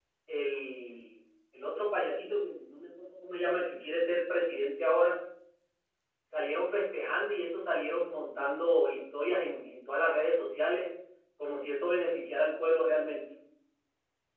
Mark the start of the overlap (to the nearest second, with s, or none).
none